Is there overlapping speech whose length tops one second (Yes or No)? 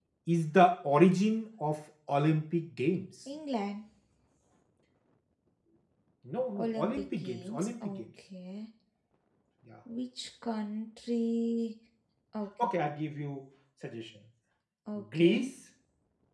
Yes